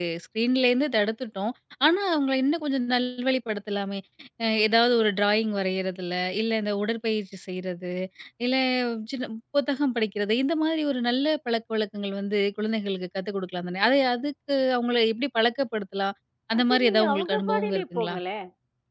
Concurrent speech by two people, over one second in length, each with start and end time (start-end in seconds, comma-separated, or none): 16.6-18.2